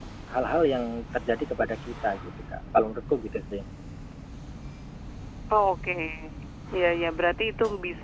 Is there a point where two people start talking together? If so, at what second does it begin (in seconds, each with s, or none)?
none